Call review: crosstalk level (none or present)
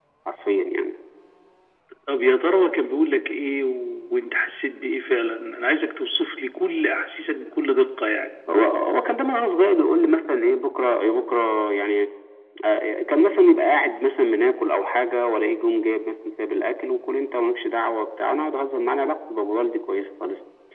none